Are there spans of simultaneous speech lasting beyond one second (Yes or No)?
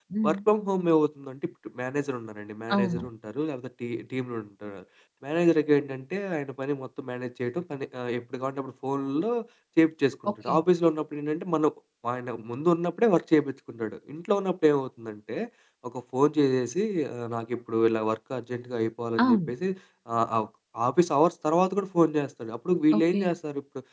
No